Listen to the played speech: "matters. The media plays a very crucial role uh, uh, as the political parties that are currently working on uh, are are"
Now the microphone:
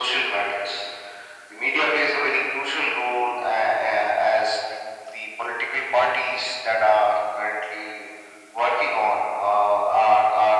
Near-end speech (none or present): none